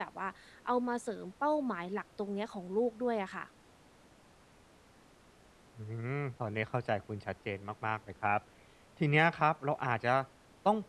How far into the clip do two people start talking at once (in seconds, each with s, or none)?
none